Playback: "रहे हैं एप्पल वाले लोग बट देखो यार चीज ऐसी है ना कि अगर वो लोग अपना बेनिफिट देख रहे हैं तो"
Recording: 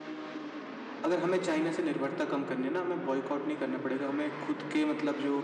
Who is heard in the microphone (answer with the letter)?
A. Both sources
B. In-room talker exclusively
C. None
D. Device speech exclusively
B